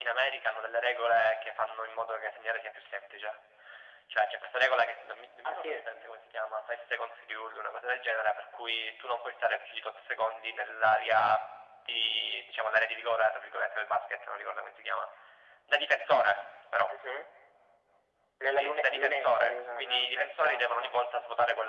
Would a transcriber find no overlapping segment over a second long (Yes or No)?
No